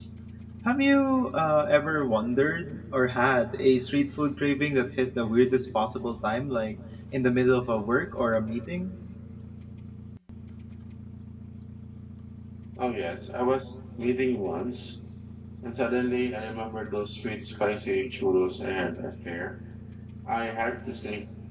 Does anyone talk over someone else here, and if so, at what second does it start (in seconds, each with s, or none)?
none